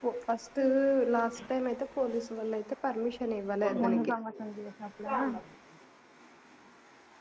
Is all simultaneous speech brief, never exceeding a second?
Yes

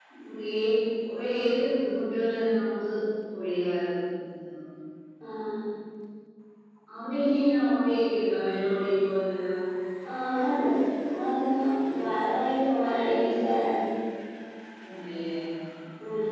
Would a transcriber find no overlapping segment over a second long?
Yes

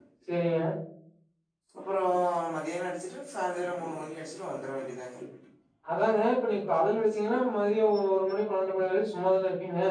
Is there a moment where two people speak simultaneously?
No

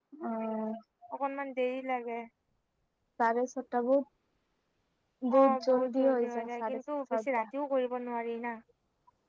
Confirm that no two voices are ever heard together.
No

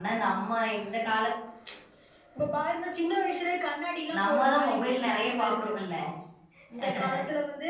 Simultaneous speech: Yes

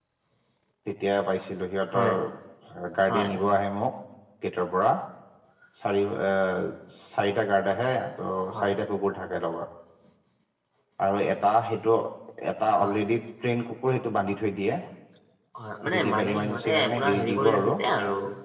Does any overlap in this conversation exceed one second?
Yes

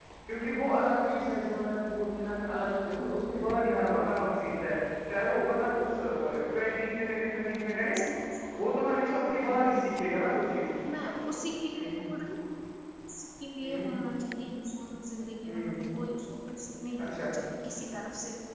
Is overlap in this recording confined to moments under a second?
Yes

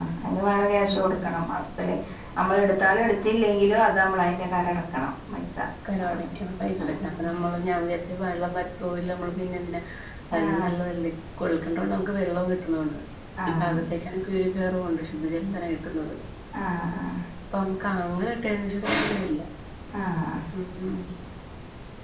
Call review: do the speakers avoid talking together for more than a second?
Yes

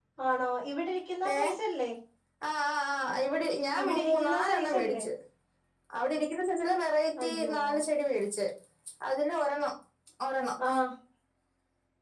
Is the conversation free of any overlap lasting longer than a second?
No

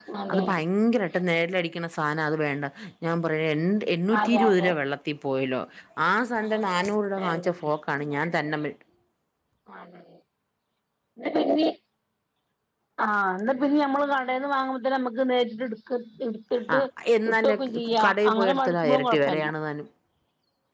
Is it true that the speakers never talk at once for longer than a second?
No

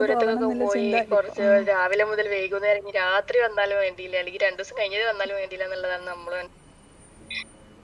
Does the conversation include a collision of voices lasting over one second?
Yes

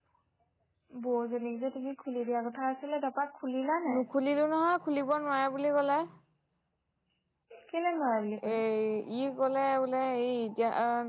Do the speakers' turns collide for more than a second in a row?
No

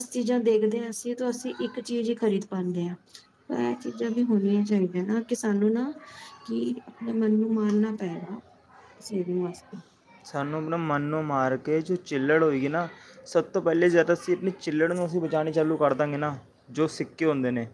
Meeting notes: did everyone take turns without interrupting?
Yes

